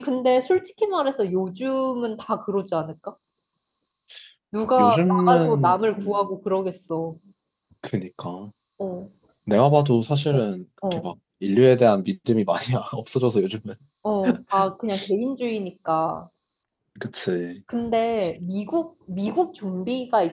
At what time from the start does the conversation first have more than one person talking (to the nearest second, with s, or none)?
5 s